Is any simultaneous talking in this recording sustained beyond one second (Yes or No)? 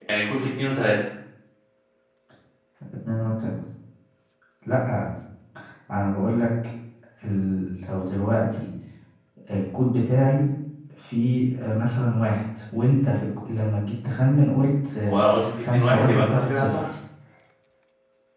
Yes